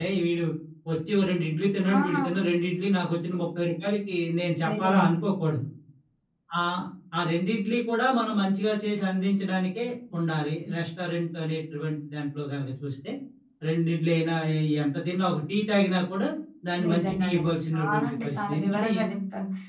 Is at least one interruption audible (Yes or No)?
Yes